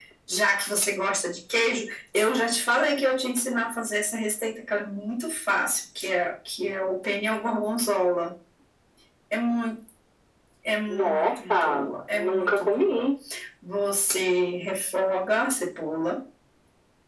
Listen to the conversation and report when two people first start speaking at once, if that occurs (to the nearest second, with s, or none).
11 s